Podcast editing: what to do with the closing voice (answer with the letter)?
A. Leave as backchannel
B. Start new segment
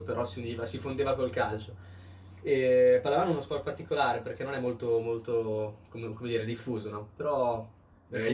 B